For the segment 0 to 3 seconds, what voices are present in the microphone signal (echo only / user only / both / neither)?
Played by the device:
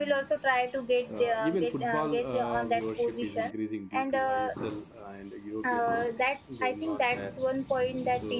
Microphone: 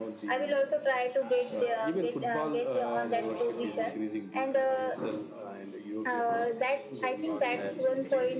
both